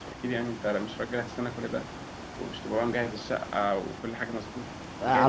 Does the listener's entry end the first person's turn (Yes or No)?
Yes